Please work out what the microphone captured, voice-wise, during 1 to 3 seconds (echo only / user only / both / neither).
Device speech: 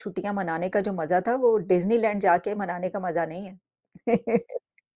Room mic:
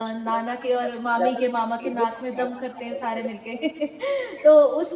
both